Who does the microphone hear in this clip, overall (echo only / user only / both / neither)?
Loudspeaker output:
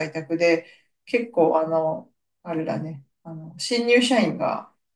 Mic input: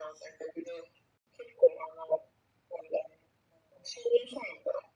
echo only